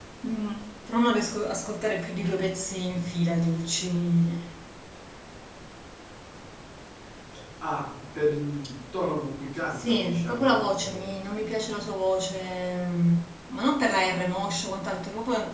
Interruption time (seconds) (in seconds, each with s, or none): 9.7 s